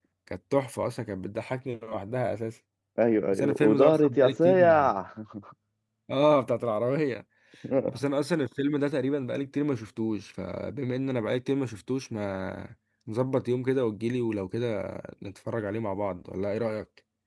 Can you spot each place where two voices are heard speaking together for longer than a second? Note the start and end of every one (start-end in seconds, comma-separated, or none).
3.3-4.8